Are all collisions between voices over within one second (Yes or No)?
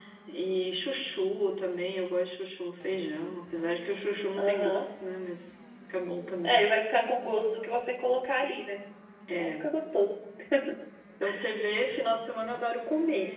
Yes